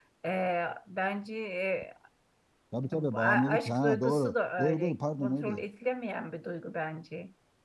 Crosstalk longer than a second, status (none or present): present